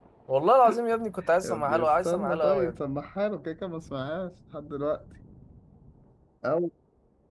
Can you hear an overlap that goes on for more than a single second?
Yes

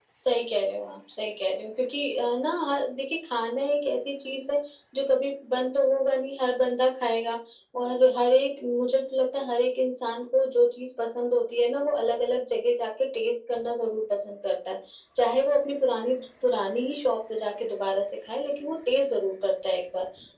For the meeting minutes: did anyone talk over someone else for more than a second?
No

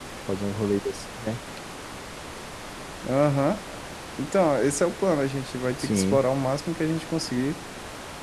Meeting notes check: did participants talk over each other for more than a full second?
No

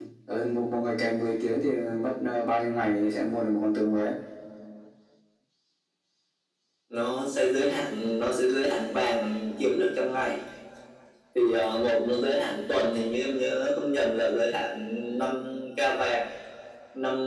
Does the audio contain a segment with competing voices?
No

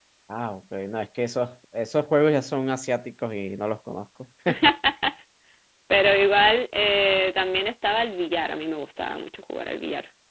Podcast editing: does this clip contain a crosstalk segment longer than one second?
No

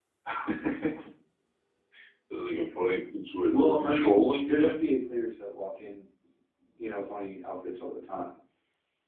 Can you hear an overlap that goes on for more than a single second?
Yes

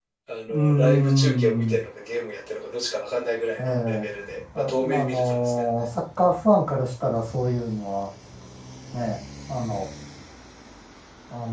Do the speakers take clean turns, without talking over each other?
No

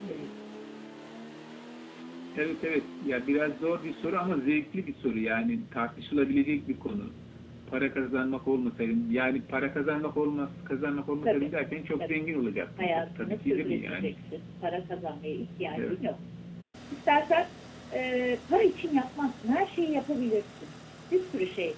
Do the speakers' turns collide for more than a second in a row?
Yes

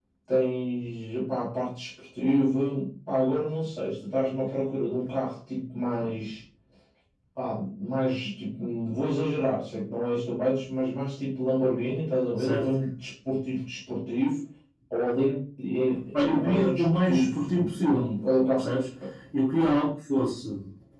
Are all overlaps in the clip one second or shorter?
No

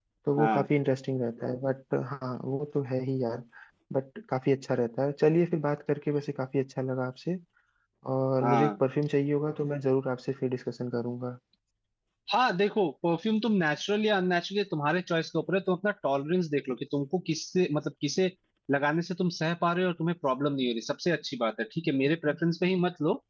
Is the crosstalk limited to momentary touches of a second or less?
Yes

